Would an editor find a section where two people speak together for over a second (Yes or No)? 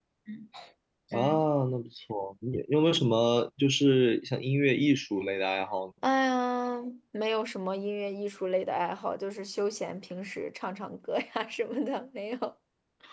No